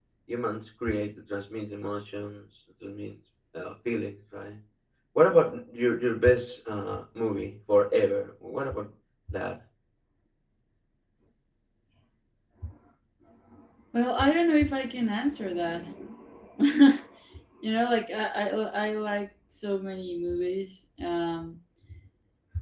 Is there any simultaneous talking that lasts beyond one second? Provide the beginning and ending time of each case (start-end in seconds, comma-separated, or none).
none